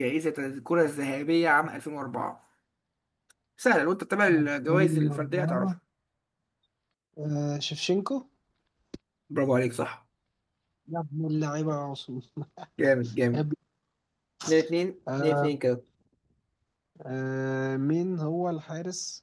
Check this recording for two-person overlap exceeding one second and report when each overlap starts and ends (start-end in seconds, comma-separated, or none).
4.3-5.7